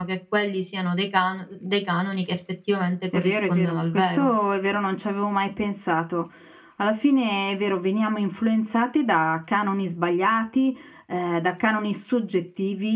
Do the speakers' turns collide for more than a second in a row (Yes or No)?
Yes